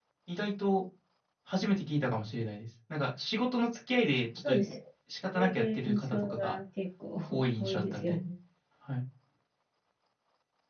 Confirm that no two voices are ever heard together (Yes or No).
No